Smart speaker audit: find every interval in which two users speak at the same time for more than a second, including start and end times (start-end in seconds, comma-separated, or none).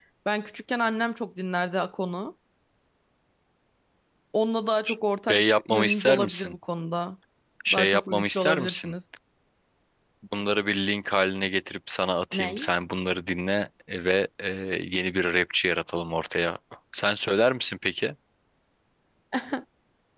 5.3-6.5, 7.7-8.9